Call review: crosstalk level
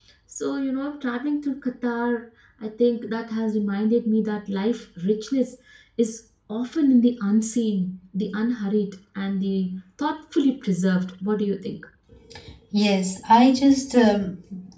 none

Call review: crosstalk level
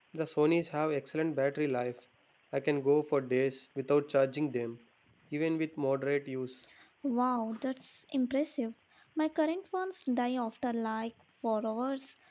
none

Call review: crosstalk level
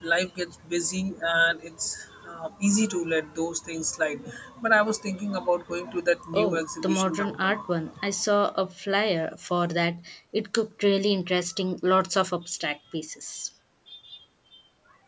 present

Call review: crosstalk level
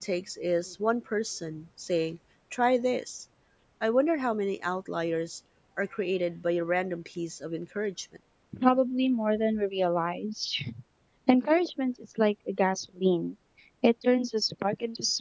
none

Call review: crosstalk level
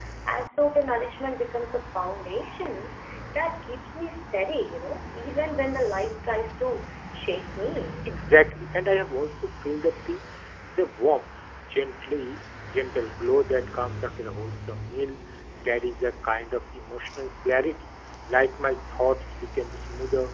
none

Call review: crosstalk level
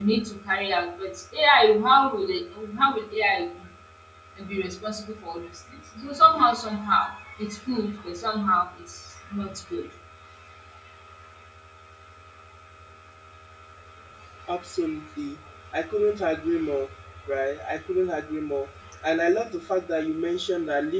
none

